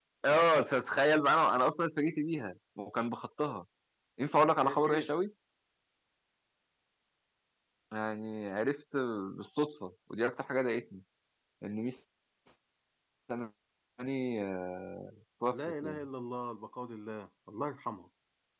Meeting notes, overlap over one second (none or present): none